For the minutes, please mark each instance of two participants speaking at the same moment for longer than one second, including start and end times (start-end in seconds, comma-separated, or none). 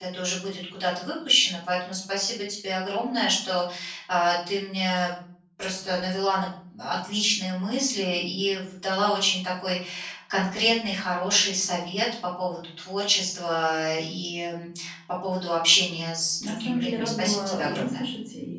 16.4-18.0